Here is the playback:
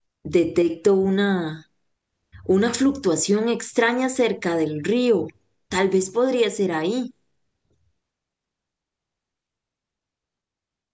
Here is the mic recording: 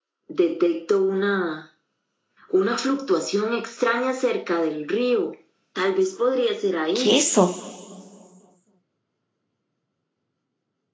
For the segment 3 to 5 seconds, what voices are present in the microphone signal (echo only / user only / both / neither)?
echo only